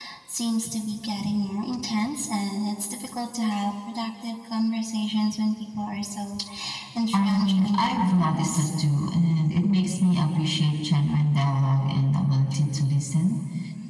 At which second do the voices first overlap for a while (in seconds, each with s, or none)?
7.1 s